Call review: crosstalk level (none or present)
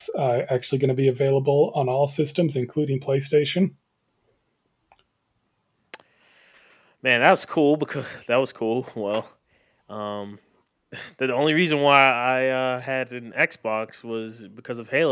none